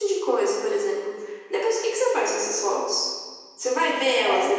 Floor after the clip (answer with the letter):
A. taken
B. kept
A